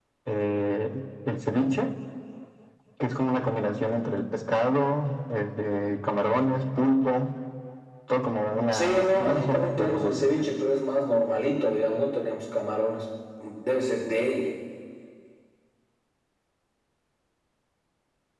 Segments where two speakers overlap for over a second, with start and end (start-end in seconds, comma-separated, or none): 8.7-10.4